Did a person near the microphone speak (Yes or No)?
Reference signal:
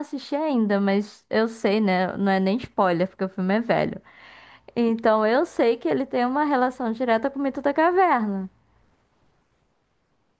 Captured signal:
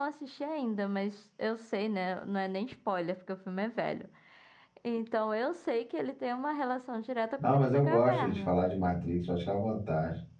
Yes